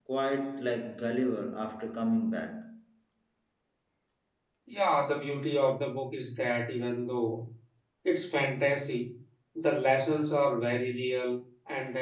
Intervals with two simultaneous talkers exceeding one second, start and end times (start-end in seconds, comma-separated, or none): none